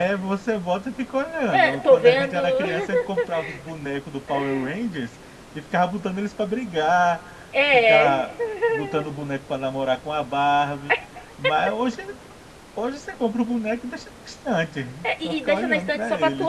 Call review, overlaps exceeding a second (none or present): present